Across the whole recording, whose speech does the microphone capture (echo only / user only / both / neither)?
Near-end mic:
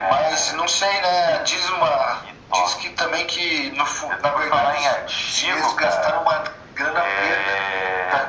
echo only